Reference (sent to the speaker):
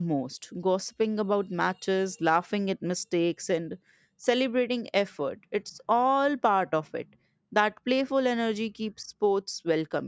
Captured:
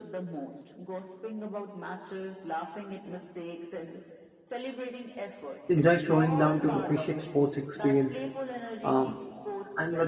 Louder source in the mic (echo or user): user